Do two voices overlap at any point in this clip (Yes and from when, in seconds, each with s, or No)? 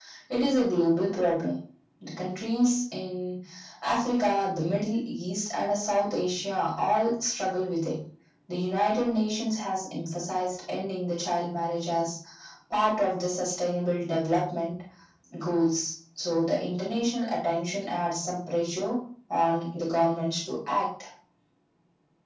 No